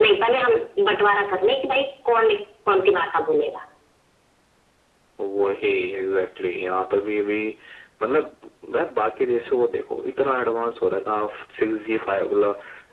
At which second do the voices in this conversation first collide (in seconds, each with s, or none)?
none